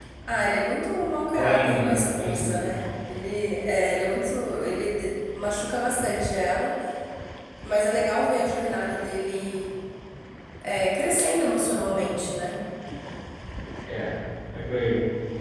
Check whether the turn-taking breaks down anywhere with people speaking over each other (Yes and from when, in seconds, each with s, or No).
Yes, from 1.3 s